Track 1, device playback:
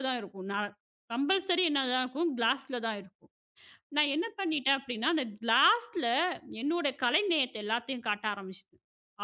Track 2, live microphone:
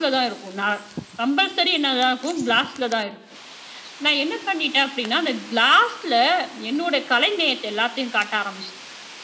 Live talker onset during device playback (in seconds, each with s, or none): none